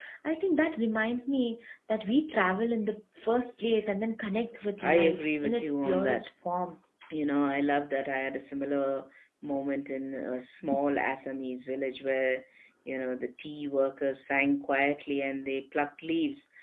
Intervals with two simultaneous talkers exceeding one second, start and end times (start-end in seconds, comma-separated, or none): 4.8-6.3